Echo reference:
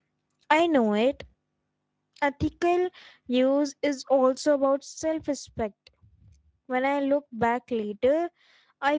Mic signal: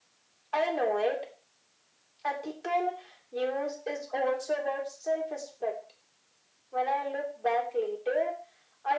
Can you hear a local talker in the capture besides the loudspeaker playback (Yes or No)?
No